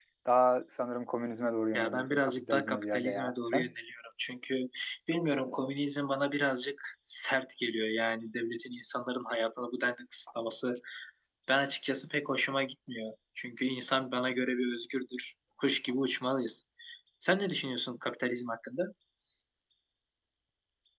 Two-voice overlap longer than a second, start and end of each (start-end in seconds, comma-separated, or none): 1.7-3.7